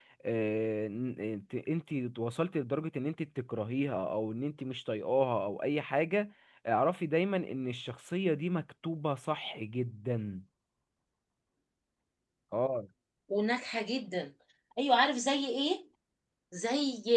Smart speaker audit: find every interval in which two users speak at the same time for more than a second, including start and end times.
none

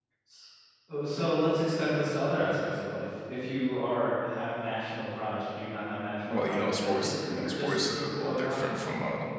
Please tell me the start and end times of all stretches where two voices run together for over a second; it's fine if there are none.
6.3-8.6

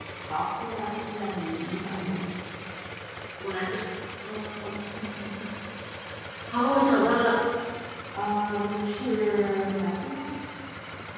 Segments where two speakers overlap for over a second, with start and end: none

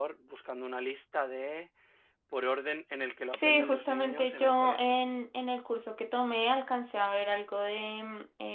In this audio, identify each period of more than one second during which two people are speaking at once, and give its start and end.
3.3-5.0

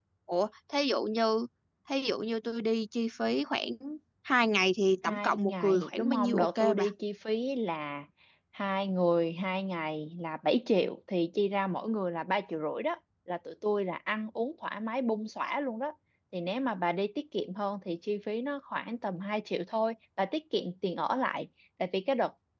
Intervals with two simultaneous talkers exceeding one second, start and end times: 5.0-6.9

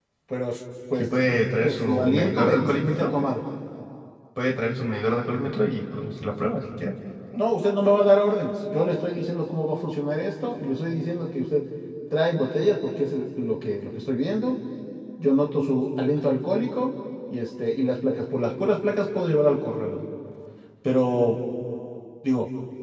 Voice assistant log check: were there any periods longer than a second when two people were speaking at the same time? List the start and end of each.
1.0-3.1

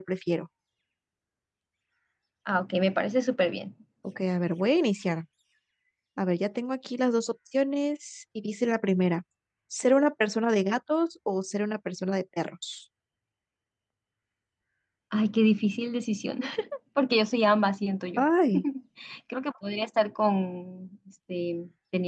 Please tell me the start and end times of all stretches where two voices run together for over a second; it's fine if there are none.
none

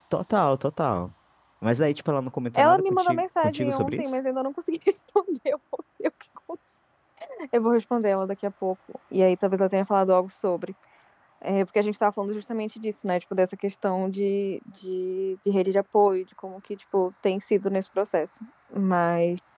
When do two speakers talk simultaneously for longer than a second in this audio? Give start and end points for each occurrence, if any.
2.6-4.1

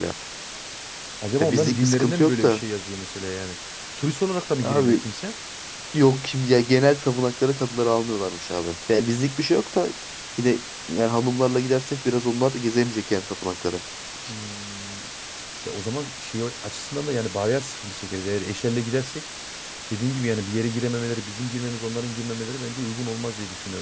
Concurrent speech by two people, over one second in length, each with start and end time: 1.4-2.6

